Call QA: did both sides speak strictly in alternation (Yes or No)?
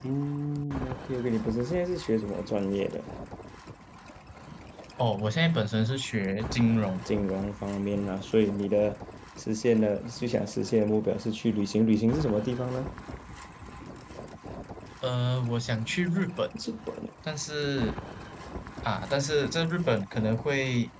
Yes